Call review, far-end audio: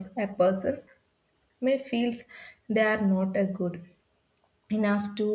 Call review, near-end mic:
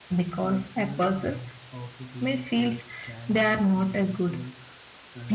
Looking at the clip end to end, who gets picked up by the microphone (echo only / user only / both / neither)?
both